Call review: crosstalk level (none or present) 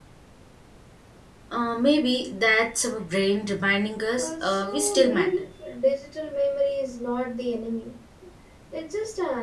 present